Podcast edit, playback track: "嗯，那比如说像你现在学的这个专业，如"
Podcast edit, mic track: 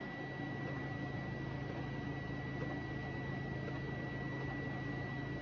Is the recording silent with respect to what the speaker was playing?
Yes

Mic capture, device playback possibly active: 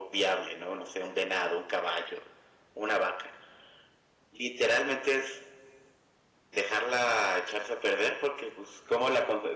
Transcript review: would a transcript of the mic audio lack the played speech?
No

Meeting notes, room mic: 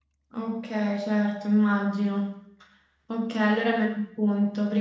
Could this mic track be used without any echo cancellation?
Yes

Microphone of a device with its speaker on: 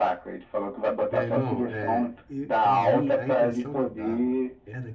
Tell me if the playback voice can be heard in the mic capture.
Yes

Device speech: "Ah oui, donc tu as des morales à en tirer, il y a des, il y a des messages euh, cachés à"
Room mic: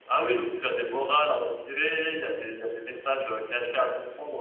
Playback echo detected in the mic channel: Yes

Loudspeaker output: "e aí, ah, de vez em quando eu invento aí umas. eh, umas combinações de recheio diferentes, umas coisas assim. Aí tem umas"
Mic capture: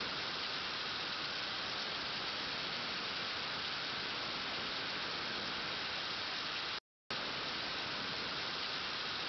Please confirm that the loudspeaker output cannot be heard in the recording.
Yes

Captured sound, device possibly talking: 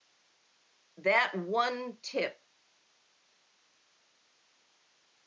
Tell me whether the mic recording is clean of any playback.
Yes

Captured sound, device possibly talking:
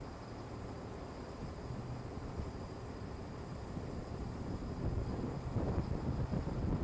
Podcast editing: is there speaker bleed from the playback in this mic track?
No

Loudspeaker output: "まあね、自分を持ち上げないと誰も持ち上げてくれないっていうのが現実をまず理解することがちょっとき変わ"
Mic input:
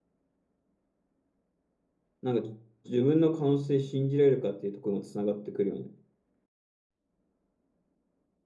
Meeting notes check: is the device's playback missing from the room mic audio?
Yes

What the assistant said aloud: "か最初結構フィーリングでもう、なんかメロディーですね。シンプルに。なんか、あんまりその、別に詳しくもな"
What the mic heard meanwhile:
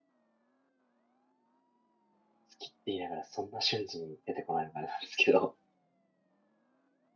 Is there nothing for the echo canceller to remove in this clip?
Yes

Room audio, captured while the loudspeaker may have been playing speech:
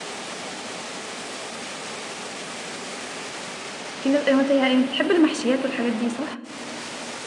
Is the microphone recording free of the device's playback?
Yes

